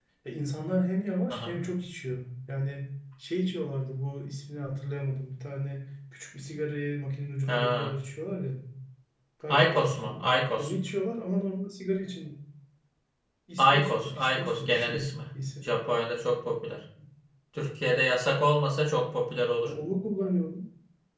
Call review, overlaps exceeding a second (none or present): present